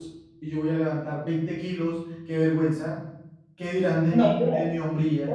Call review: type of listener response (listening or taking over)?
taking over